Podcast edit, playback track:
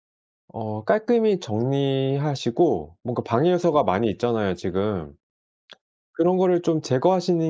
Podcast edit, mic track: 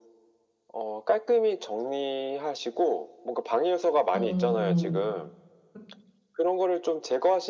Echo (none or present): present